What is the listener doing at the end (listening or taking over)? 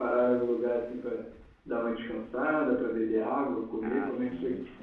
taking over